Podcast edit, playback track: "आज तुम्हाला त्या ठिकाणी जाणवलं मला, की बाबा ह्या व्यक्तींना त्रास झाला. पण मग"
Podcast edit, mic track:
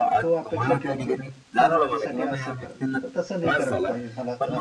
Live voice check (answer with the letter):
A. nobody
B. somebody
B